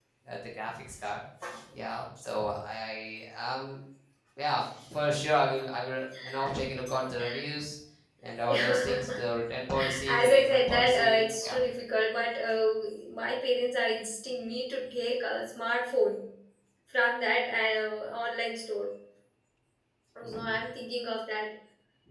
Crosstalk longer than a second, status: present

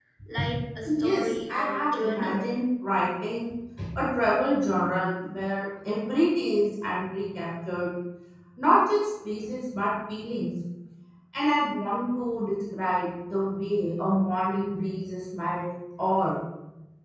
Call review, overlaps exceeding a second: present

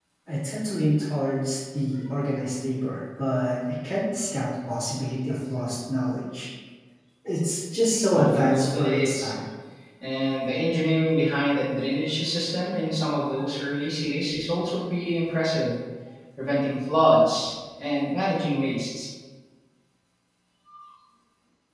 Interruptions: present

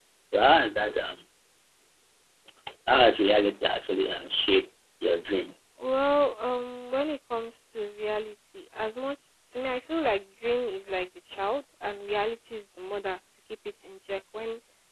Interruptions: none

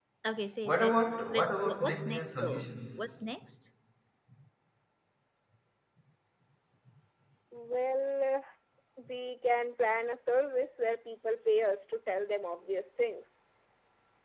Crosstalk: present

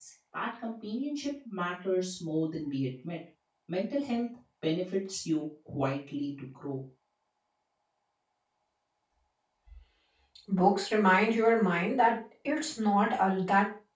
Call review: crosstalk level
none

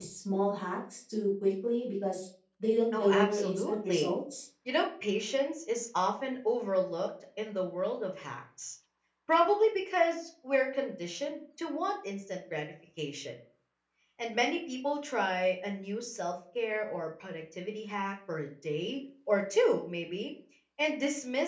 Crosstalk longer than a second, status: present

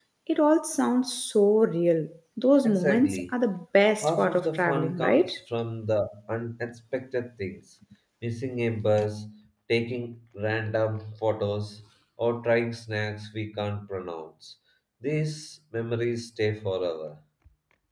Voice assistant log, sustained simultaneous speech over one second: present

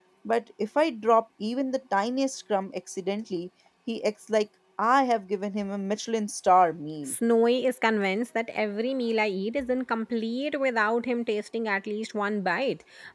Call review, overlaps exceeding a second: none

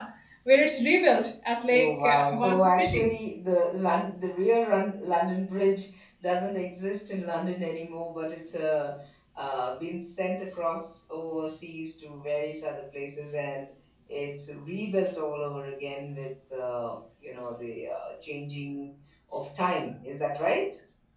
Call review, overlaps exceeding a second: present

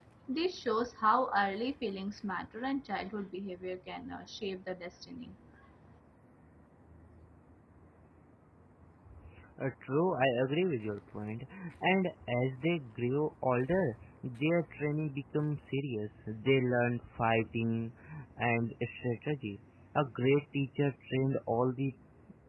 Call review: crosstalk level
none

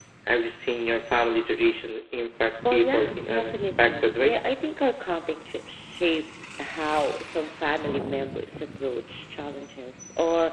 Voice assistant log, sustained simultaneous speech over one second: present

